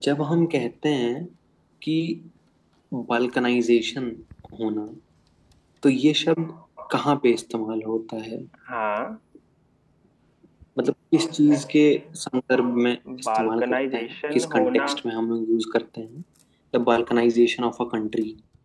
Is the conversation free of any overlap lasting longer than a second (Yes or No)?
No